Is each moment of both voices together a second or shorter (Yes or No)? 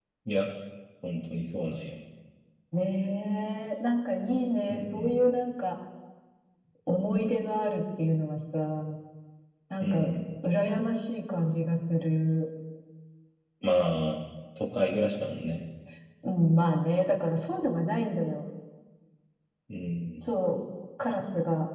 Yes